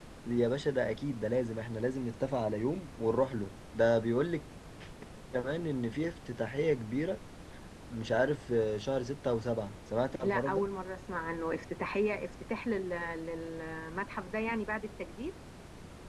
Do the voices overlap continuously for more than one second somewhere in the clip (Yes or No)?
No